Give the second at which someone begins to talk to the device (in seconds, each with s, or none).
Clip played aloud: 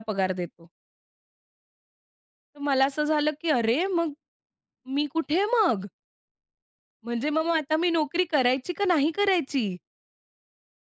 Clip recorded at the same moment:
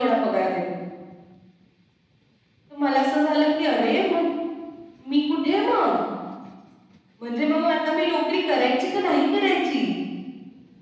none